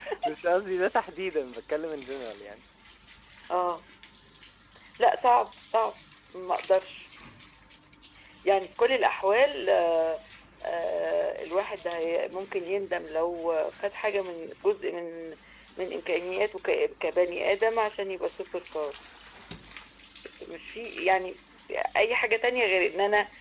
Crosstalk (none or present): none